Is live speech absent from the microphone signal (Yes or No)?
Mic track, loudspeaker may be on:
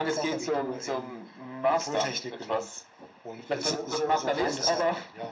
Yes